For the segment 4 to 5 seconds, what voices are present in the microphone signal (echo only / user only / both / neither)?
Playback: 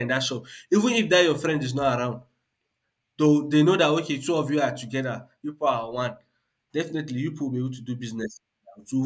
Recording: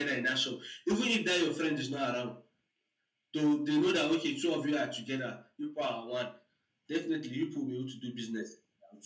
echo only